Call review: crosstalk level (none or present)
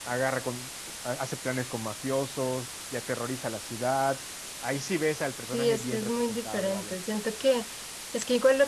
present